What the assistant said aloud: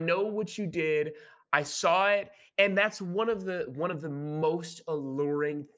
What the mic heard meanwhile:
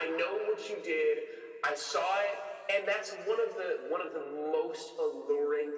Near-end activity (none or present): none